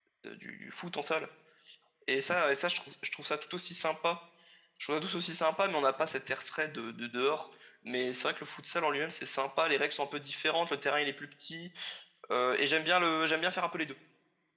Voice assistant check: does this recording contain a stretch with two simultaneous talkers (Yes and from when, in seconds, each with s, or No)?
No